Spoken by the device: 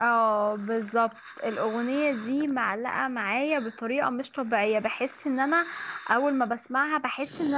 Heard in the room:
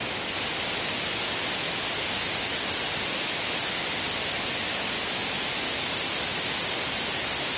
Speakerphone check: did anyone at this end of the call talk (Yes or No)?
No